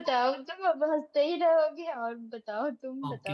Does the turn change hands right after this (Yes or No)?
Yes